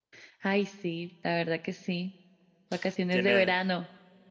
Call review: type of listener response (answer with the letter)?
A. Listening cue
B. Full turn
B